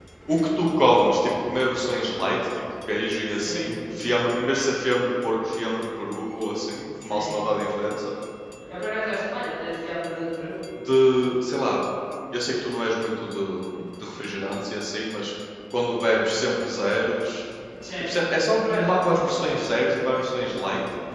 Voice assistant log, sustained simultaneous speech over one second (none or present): none